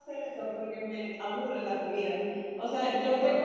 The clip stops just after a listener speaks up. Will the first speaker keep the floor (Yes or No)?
Yes